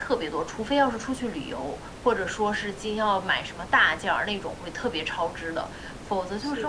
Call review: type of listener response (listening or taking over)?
listening